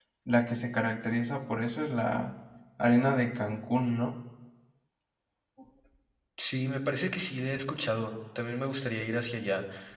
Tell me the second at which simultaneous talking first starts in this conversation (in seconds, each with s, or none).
none